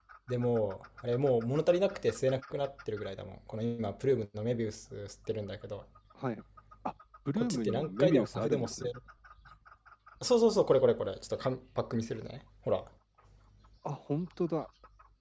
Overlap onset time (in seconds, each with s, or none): 7.4 s